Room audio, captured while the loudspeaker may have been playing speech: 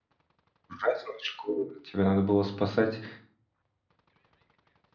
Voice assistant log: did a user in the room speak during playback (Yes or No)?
Yes